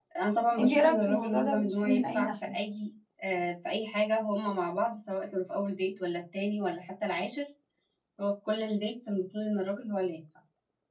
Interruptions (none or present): present